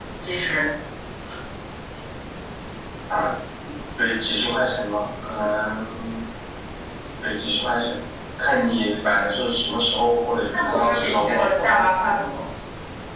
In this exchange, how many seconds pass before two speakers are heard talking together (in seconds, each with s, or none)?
10.5 s